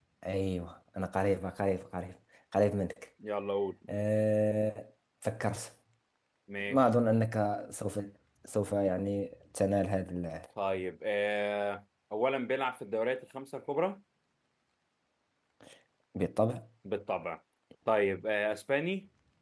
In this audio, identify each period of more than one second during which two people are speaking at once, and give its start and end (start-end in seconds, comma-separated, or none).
none